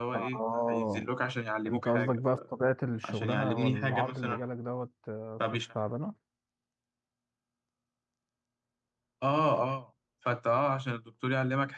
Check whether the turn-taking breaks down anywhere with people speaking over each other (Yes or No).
Yes